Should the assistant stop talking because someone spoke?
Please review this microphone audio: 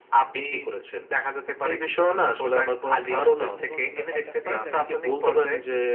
Yes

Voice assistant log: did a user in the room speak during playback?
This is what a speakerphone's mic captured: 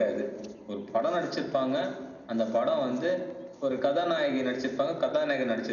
No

